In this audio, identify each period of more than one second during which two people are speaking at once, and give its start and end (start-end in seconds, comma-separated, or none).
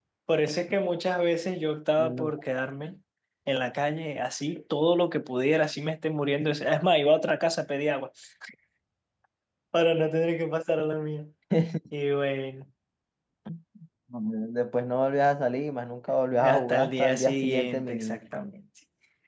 16.5-18.2